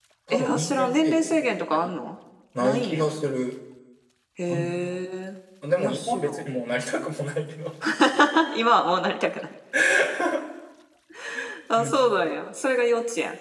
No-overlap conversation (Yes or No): No